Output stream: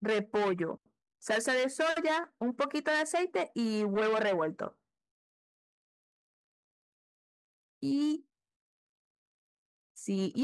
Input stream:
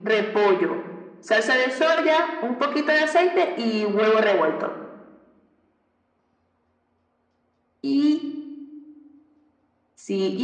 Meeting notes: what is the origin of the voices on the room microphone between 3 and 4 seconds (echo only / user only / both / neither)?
echo only